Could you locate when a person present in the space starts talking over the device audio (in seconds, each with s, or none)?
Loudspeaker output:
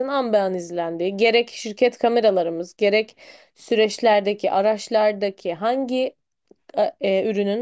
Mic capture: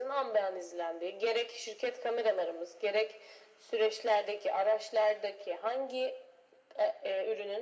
none